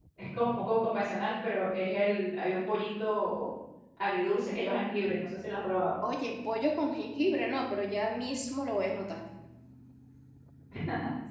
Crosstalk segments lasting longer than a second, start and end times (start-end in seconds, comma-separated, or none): none